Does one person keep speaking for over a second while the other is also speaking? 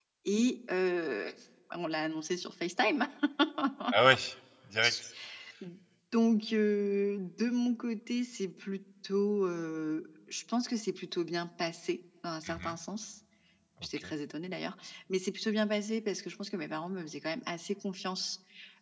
No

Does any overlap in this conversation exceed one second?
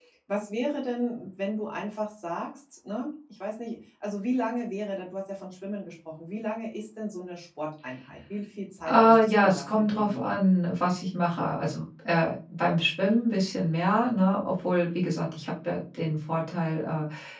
Yes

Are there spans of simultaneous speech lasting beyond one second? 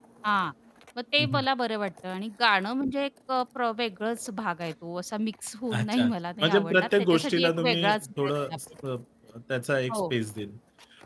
Yes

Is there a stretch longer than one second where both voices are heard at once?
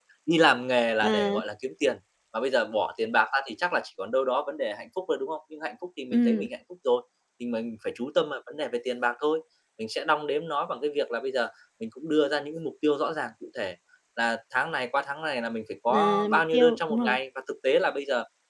Yes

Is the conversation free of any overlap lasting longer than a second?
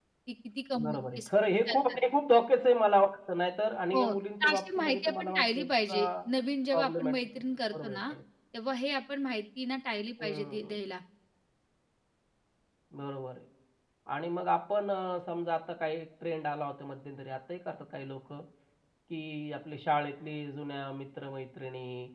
No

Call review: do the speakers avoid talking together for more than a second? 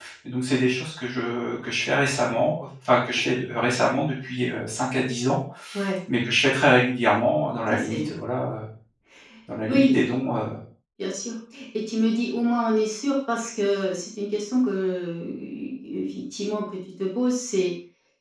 Yes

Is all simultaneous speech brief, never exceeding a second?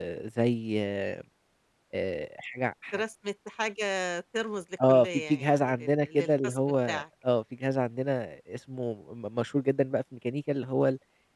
No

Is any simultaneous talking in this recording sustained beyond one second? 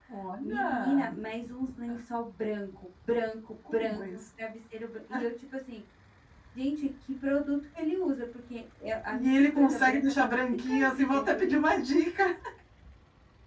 Yes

